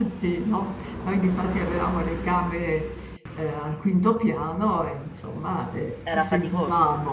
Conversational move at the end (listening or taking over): listening